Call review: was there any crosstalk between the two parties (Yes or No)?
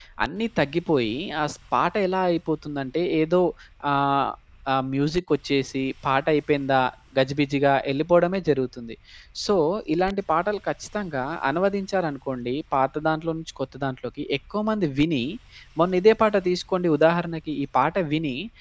No